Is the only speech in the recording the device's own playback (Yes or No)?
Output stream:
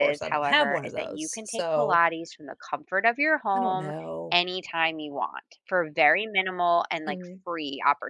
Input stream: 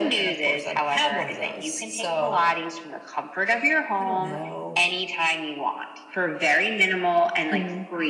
Yes